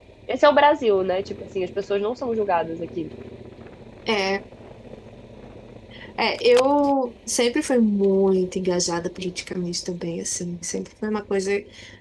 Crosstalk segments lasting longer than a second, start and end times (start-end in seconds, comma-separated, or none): none